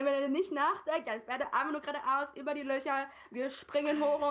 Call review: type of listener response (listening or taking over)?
listening